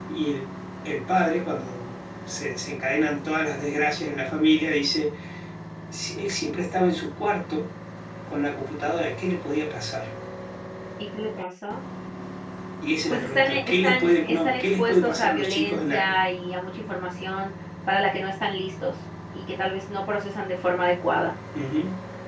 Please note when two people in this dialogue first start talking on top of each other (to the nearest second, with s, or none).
13 s